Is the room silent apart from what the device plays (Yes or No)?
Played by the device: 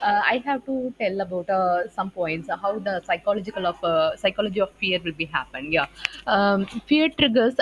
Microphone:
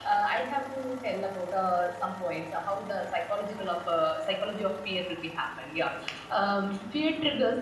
Yes